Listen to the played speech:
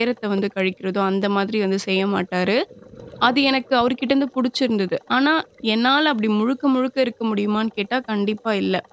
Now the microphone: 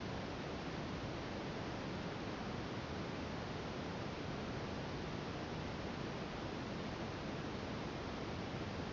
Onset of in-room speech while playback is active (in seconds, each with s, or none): none